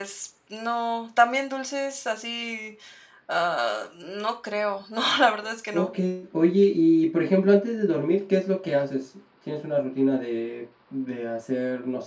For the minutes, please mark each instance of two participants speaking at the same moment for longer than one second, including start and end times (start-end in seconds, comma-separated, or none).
none